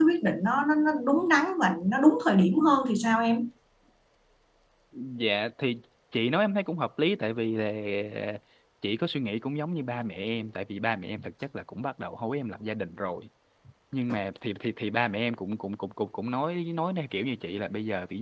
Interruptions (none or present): none